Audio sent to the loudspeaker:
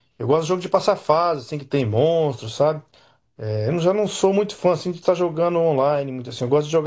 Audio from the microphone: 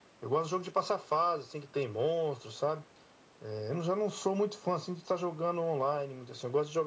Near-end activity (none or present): none